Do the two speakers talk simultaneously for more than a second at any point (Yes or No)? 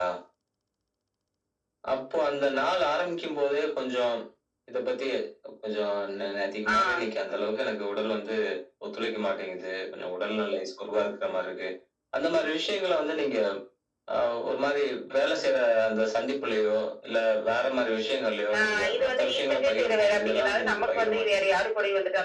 Yes